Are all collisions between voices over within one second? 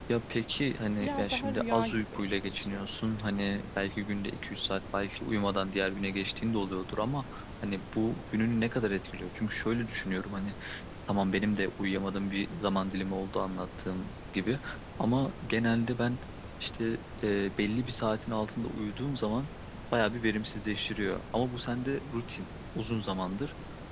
No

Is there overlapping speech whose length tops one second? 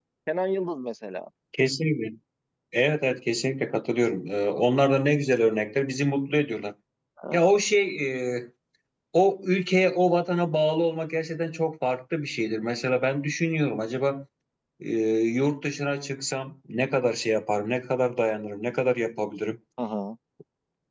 No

